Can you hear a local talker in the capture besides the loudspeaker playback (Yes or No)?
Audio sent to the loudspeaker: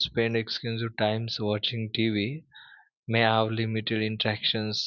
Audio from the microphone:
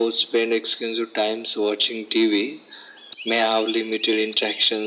No